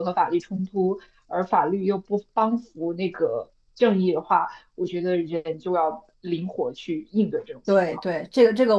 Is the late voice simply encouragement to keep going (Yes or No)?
No